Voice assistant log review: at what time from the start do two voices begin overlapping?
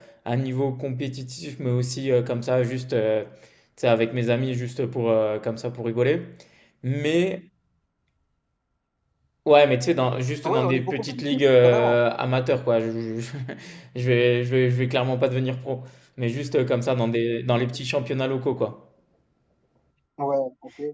10.4 s

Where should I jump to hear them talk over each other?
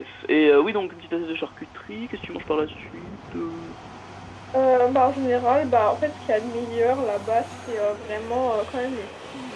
none

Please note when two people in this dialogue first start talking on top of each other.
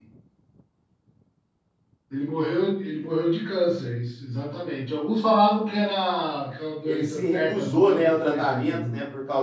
6.8 s

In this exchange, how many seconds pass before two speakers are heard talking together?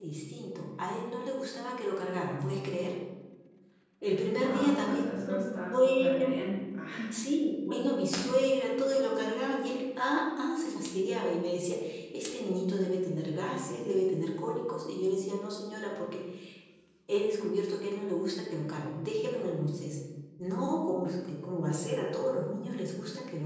4.4 s

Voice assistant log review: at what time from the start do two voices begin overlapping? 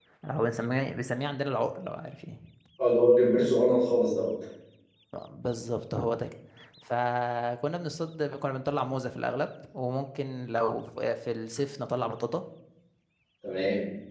none

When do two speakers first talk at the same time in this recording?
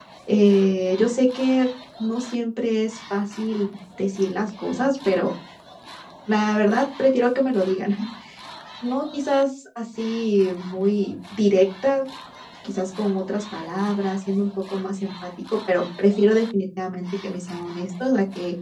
none

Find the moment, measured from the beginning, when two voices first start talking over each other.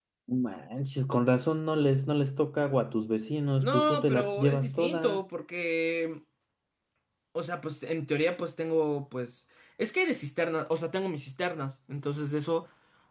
3.6 s

